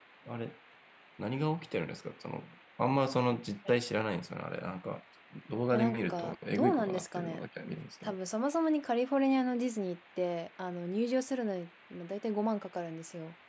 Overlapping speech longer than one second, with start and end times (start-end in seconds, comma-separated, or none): 5.7-7.4